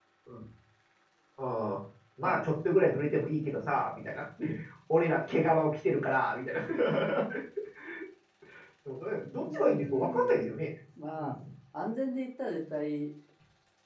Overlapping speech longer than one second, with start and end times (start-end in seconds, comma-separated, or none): 9.4-10.6